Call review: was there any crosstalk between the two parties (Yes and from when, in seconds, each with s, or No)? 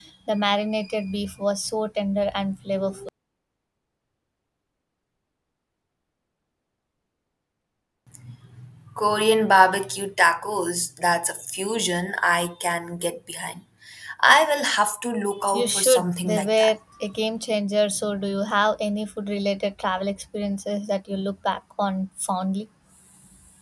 Yes, from 15.5 s